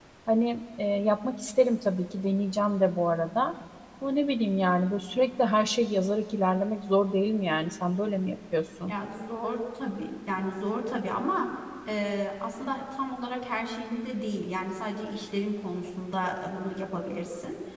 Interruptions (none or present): none